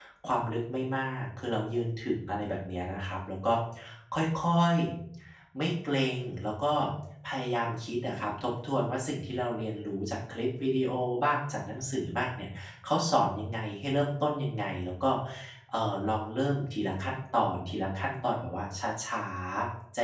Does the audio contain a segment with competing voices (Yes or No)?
No